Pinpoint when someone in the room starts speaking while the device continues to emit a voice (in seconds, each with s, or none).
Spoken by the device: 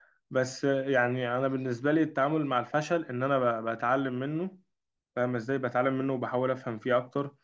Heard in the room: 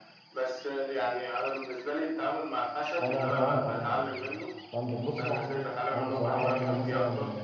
3.0 s